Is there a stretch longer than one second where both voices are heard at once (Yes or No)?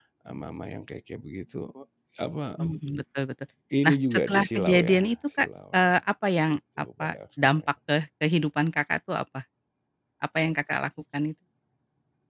Yes